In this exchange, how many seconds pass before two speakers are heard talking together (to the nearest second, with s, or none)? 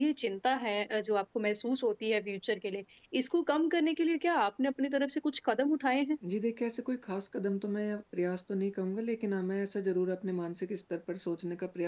none